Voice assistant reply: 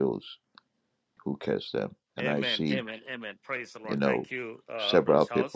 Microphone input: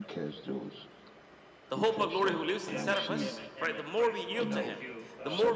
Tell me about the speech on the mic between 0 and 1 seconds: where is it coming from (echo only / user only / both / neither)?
echo only